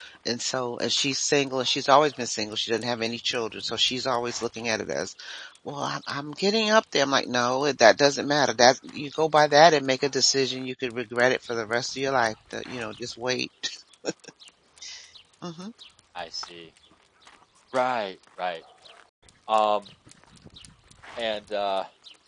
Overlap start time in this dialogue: none

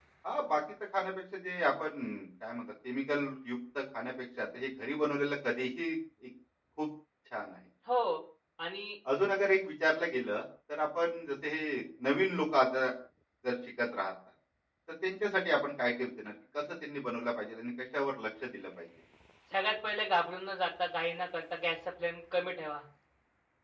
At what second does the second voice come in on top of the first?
none

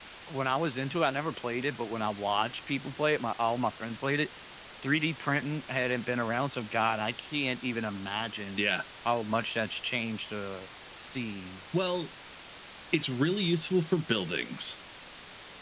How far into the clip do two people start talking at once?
none

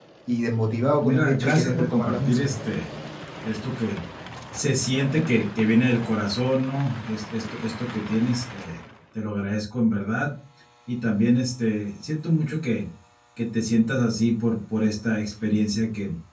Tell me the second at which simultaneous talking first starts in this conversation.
1.0 s

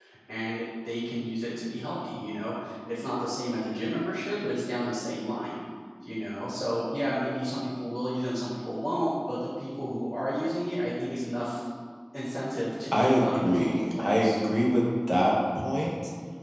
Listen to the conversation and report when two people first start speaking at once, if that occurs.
12.9 s

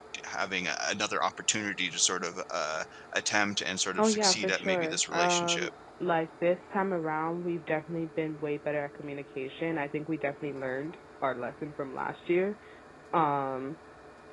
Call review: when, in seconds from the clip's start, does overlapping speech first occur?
4.0 s

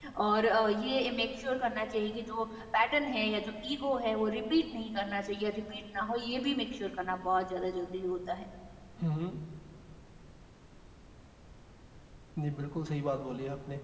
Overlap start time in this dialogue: none

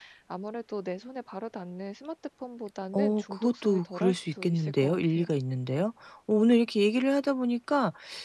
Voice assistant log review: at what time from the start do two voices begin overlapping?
2.9 s

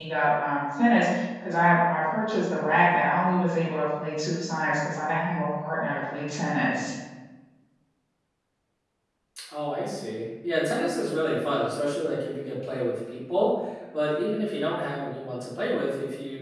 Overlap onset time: none

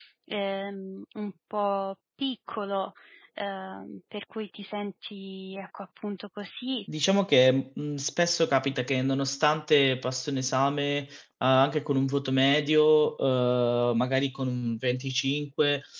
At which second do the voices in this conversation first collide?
none

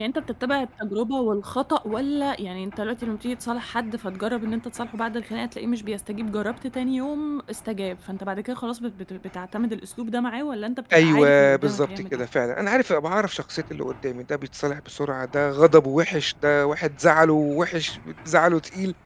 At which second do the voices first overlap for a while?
10.9 s

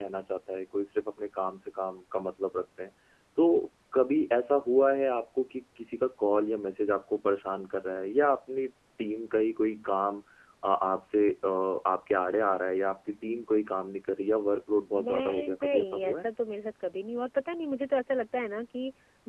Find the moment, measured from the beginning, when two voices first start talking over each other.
14.9 s

